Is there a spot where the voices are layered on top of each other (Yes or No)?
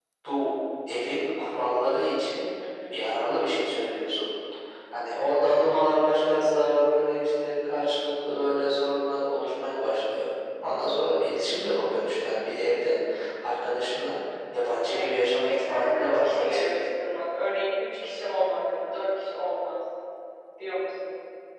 Yes